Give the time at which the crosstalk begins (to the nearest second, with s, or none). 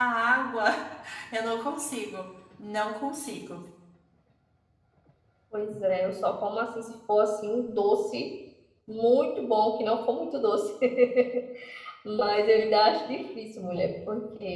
none